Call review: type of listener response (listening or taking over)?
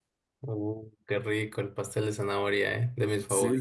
taking over